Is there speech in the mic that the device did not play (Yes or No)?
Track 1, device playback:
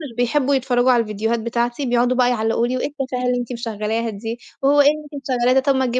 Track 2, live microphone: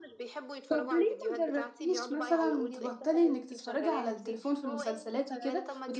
Yes